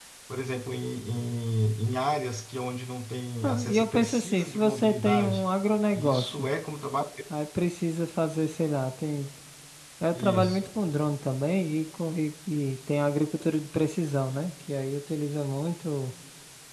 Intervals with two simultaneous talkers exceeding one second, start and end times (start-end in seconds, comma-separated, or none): 3.4-5.4